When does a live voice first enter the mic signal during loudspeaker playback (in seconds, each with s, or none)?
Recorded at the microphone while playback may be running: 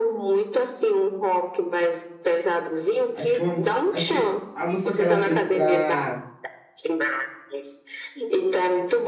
3.1 s